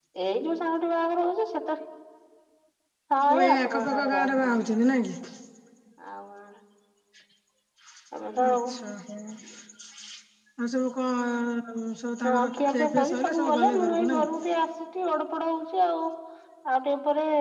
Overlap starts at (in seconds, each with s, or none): 3.3 s